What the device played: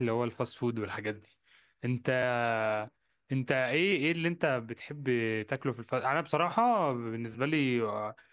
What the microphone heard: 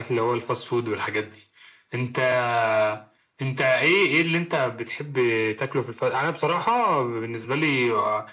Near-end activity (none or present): none